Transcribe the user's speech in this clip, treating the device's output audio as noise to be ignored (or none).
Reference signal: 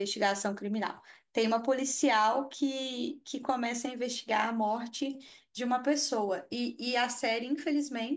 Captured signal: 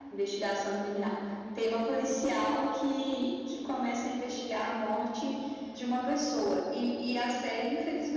none